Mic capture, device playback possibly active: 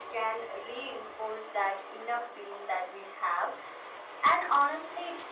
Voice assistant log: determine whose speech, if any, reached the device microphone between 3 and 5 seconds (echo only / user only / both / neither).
echo only